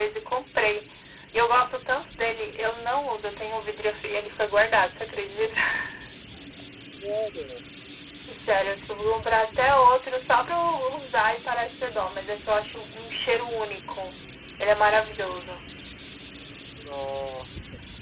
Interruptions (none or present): none